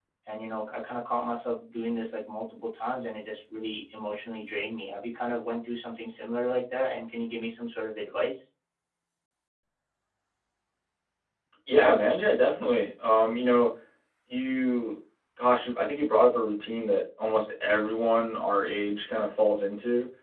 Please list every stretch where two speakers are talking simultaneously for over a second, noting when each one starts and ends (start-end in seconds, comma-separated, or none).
none